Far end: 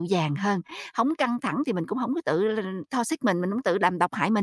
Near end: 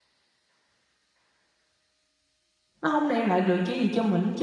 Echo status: none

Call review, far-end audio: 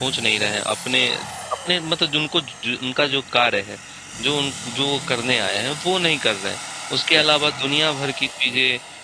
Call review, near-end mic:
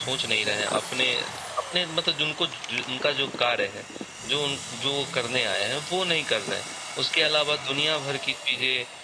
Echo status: present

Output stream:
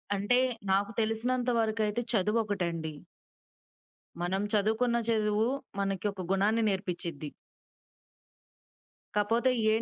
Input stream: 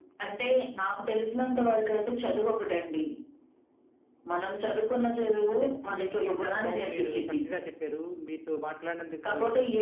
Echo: present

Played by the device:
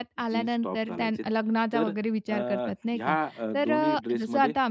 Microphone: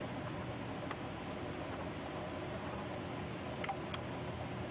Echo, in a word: none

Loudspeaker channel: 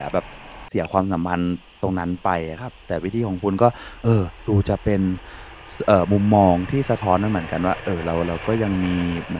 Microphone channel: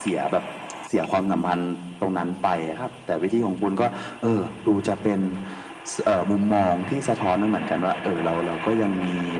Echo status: present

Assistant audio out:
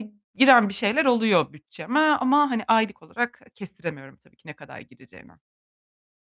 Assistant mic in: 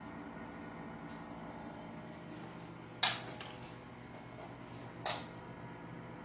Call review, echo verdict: none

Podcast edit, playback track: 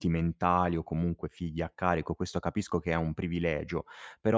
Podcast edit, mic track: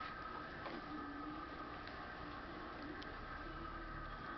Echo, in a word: none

